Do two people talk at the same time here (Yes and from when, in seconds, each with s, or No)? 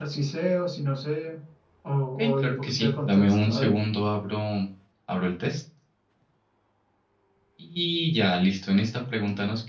Yes, from 2.2 s